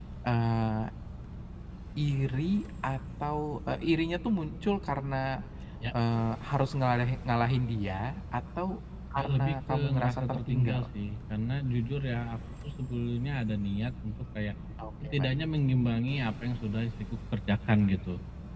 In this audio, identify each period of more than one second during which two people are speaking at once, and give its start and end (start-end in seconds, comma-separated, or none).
9.2-10.9